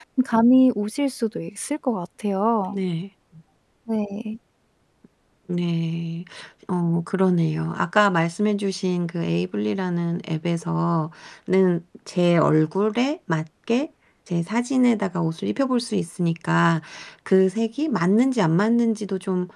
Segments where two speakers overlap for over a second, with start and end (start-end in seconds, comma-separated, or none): none